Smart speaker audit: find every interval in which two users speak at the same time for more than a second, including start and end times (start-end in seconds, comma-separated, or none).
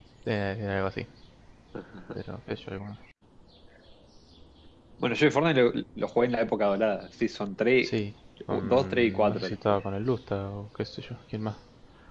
8.5-9.8